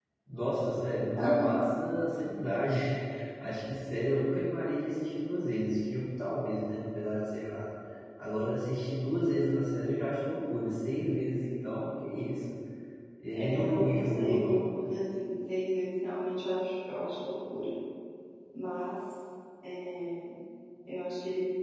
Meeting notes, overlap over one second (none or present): present